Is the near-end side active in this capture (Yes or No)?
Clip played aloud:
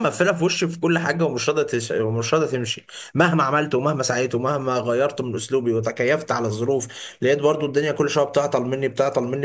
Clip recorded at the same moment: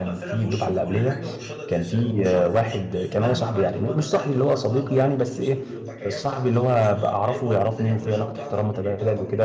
Yes